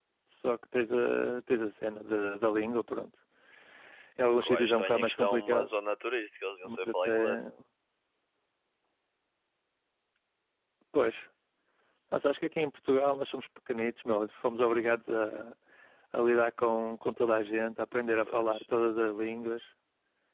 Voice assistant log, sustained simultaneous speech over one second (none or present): present